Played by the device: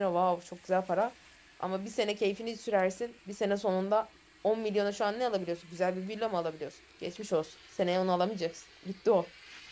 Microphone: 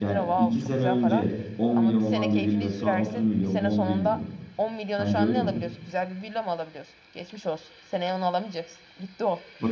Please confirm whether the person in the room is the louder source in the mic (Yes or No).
Yes